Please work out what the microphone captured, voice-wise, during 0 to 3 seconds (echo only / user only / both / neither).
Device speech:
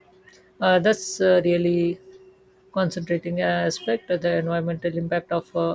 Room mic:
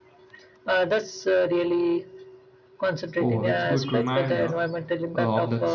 echo only